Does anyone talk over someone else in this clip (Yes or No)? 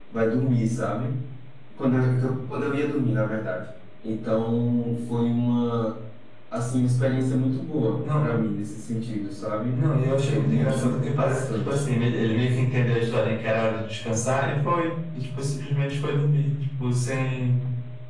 Yes